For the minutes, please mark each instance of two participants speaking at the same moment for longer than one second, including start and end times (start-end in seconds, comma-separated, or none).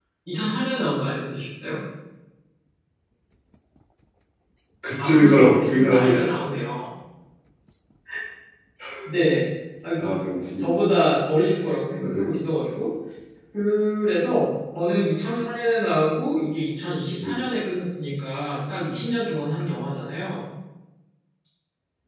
5.0-6.5